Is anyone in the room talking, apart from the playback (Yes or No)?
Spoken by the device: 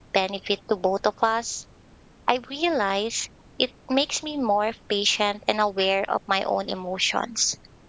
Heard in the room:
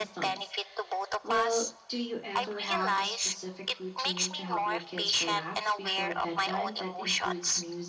Yes